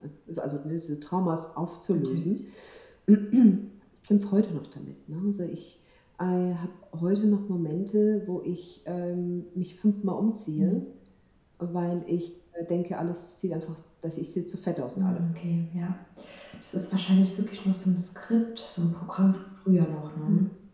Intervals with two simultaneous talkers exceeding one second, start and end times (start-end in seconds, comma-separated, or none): none